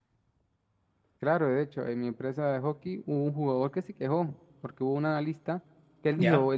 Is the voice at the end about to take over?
No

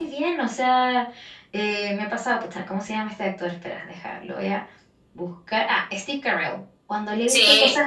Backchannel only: Yes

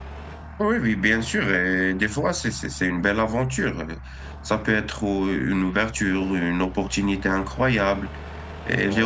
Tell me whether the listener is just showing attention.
Yes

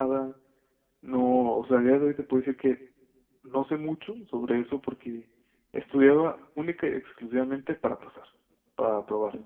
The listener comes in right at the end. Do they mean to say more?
No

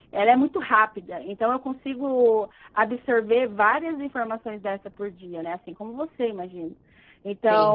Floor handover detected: No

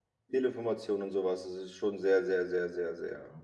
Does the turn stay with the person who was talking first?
No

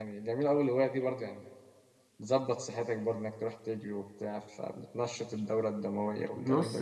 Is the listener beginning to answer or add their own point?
Yes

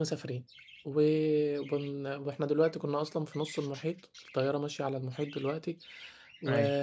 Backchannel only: Yes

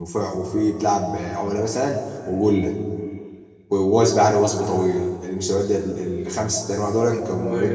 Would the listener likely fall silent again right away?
Yes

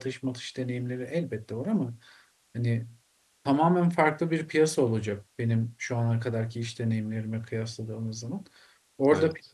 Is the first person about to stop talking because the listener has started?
No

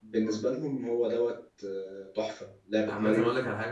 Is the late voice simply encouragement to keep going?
No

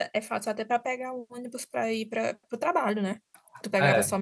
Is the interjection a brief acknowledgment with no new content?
Yes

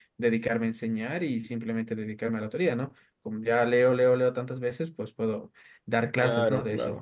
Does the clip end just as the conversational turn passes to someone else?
No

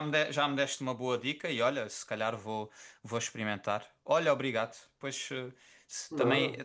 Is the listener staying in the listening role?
Yes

